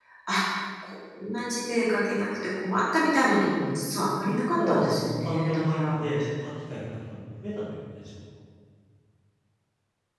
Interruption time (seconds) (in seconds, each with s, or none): 4.2 s